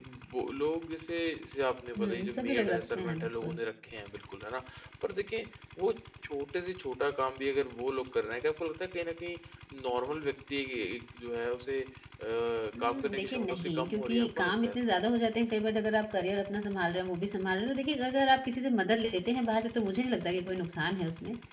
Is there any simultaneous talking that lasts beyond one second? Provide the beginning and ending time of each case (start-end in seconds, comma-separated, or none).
2.0-3.6, 12.8-14.8